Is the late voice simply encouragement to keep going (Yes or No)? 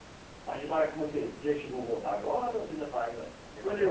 No